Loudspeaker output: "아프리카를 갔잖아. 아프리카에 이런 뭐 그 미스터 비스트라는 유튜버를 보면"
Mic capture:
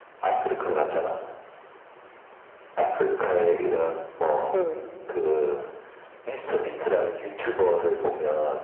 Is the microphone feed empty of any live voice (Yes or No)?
No